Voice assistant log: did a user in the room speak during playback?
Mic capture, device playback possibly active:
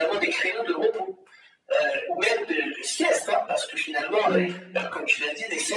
Yes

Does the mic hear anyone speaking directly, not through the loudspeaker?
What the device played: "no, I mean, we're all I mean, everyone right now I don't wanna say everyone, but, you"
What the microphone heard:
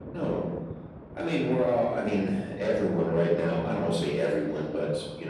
No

